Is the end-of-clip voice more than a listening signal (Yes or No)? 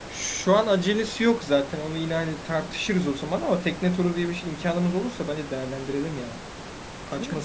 Yes